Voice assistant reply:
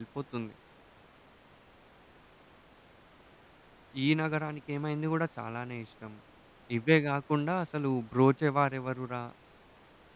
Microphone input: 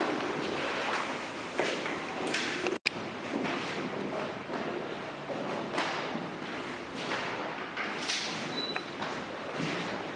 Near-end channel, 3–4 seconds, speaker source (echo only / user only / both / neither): neither